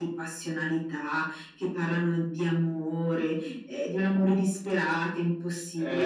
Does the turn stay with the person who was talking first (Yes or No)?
No